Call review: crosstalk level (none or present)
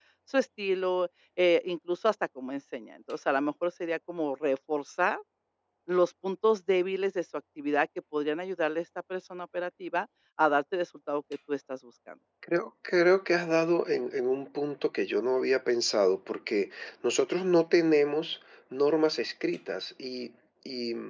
none